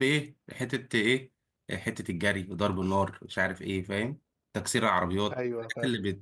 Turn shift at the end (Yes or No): No